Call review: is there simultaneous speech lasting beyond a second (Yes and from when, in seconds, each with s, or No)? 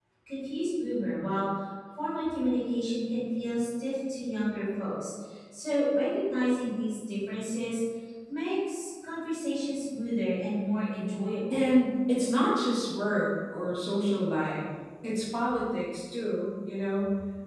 No